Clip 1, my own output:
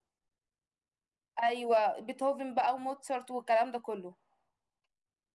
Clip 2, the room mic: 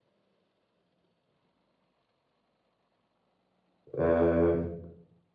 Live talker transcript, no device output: آه

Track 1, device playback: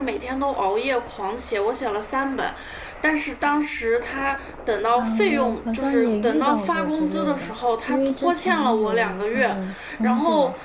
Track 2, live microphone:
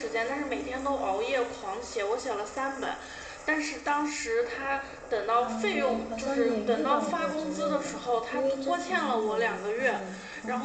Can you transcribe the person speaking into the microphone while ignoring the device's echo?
none

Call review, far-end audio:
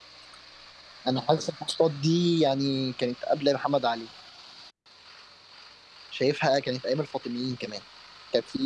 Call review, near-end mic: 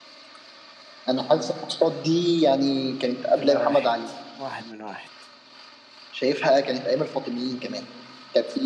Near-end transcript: كده واحد واحد من واحد

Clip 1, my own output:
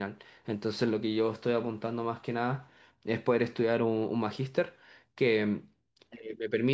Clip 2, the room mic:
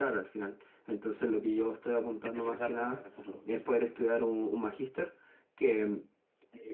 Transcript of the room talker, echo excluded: especializarte en el futuro. sí.

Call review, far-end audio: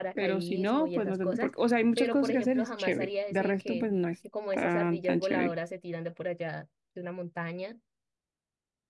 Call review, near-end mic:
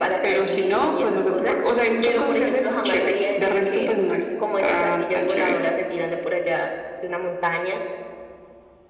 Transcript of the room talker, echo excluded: none

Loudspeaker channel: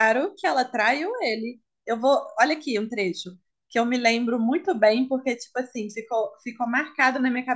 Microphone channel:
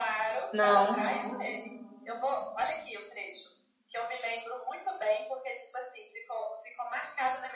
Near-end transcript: Não,

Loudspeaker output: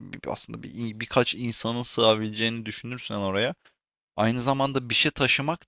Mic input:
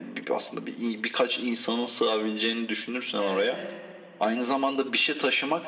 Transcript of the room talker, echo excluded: Evet.

